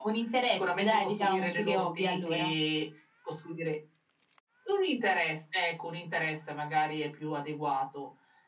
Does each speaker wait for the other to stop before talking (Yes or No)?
No